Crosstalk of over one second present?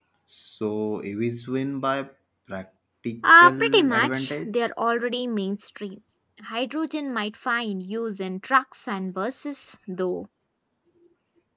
Yes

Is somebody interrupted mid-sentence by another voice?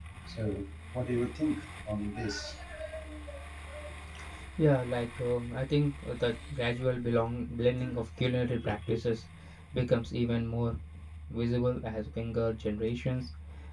No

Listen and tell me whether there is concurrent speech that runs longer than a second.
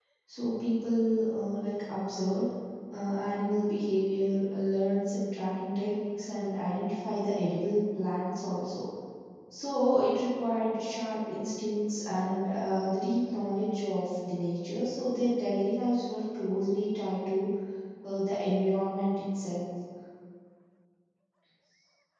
No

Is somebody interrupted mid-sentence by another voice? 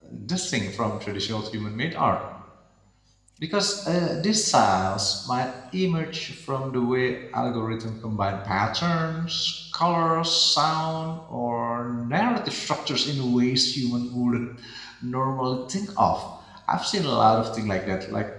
No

